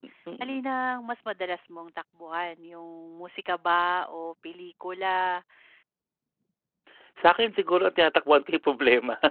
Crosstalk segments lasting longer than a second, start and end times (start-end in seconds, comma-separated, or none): none